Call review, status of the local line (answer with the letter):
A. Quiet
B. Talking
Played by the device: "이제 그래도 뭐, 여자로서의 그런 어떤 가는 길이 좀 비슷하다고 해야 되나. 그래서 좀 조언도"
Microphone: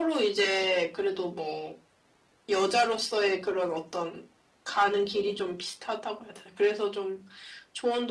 A